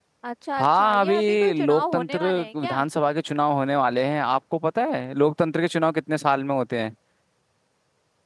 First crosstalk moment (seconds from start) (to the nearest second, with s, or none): 1 s